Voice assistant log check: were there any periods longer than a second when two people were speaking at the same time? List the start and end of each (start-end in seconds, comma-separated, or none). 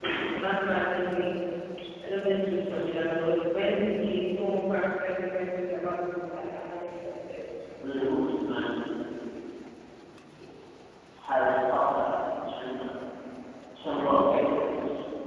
none